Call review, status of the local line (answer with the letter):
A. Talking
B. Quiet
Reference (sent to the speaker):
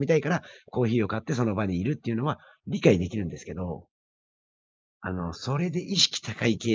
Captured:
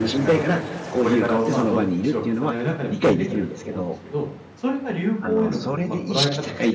A